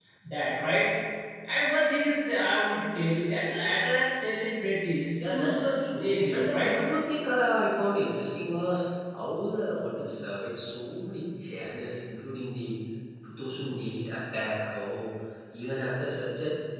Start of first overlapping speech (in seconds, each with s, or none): 5.2 s